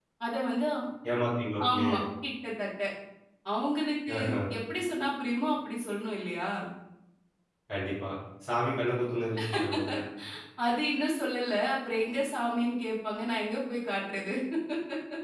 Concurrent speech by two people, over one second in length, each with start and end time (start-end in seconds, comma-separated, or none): none